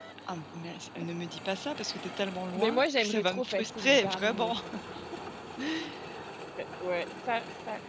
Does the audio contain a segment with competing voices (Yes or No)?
Yes